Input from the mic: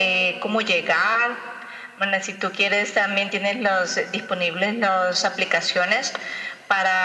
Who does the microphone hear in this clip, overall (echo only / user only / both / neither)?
echo only